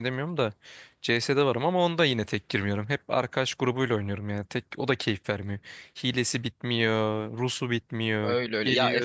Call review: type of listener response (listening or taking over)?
taking over